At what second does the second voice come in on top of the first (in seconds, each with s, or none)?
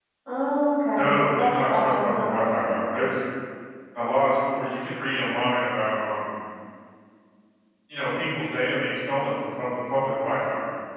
1.0 s